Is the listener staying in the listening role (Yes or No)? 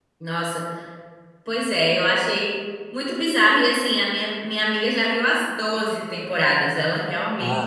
No